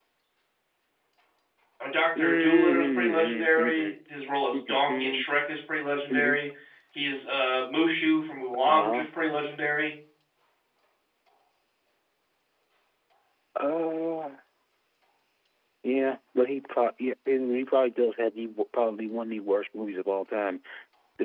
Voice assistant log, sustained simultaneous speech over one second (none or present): present